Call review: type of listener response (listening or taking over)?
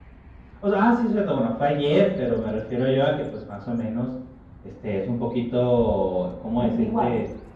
listening